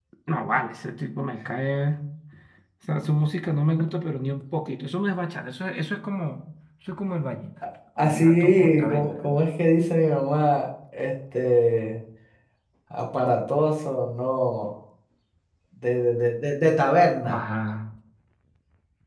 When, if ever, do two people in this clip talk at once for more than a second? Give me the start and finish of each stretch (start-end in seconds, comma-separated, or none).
8.0-9.4